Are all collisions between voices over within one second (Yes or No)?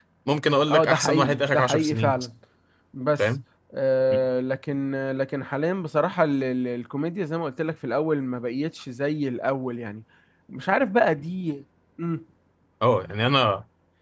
No